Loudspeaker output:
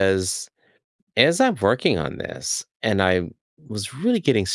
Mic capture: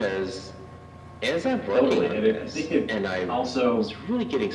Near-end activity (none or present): present